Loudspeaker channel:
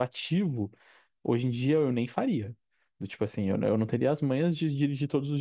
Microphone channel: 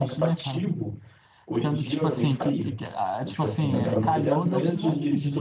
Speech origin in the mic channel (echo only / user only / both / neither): both